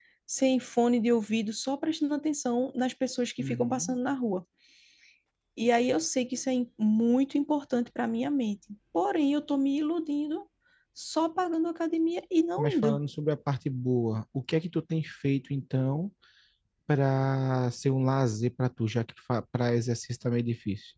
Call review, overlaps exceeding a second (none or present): none